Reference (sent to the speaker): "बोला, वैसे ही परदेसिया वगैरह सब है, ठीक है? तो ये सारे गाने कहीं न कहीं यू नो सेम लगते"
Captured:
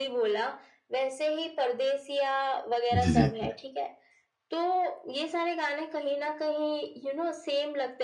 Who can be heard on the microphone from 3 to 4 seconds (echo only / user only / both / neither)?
both